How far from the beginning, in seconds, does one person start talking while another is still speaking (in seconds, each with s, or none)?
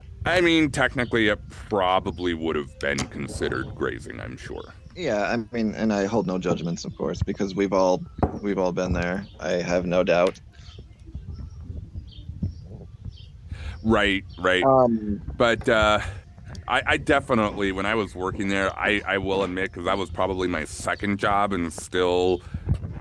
none